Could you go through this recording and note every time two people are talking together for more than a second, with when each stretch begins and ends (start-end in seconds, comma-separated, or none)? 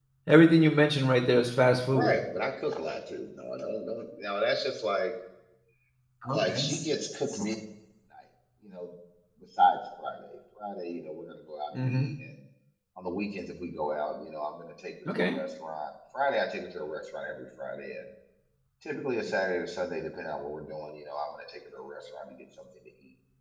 none